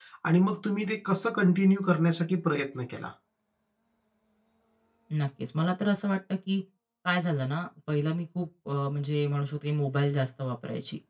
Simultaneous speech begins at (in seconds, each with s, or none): none